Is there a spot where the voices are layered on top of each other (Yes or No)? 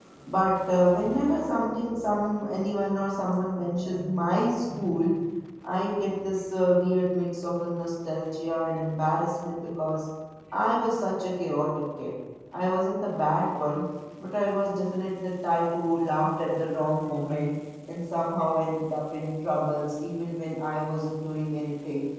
No